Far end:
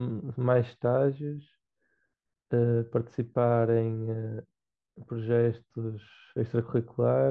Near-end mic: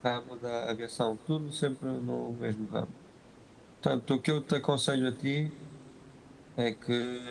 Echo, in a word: none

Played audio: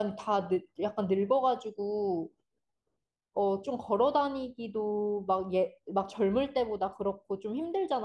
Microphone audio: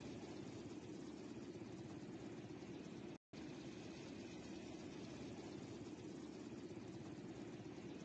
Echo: none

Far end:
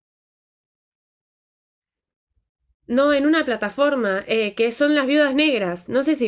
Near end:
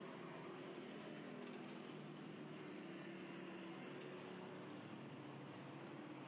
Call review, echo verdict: none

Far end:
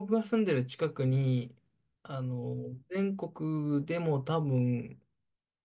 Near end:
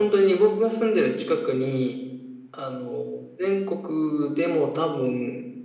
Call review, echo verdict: present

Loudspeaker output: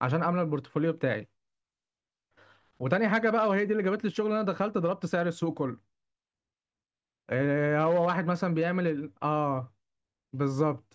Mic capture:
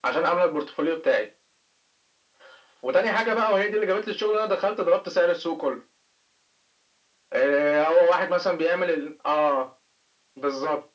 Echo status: present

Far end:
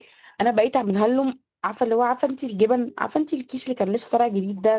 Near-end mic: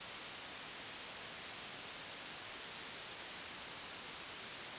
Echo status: none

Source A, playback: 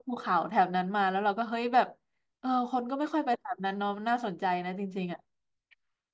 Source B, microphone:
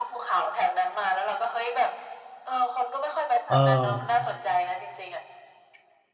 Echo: present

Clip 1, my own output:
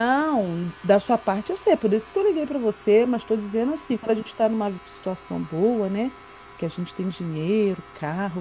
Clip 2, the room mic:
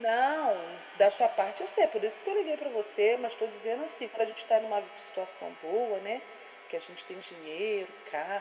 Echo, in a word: present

